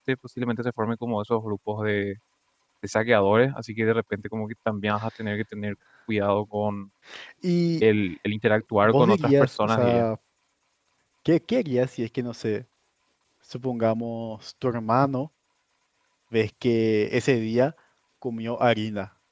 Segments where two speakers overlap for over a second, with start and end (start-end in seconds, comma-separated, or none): 8.8-10.1